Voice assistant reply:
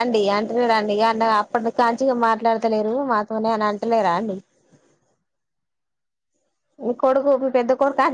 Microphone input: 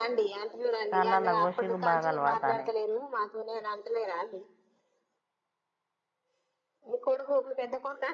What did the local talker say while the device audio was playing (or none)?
చాలా లఘోషీకు బాగాలపడతానే